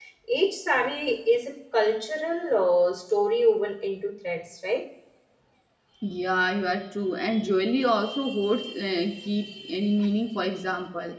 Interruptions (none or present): none